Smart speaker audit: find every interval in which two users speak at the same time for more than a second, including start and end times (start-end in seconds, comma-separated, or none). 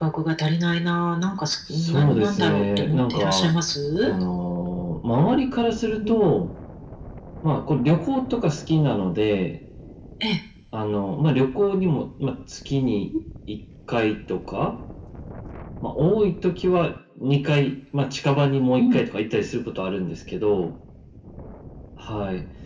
1.7-3.5